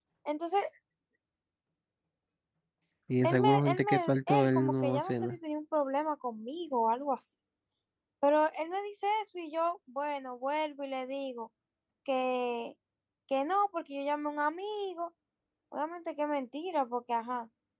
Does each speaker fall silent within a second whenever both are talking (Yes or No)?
No